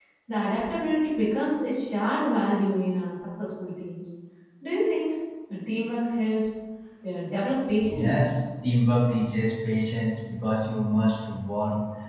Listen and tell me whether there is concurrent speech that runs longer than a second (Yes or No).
No